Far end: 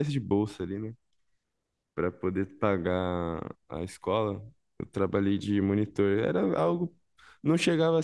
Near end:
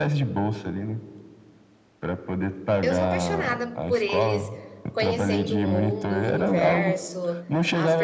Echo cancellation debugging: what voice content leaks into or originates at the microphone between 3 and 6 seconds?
both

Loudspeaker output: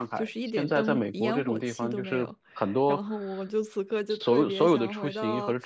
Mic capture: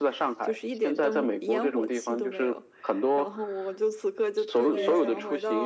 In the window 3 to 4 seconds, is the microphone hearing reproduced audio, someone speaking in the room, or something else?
echo only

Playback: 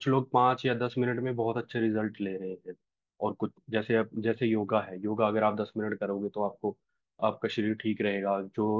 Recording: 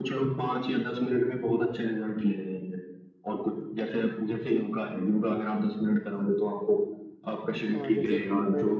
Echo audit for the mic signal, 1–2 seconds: echo only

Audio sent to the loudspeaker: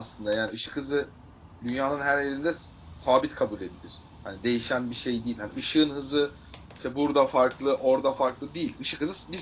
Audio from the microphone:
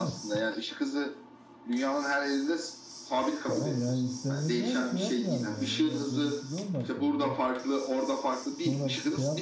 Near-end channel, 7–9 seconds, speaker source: both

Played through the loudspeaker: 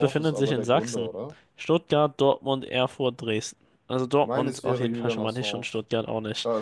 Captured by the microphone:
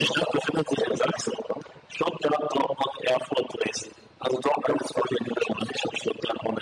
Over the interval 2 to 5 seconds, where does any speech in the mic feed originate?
echo only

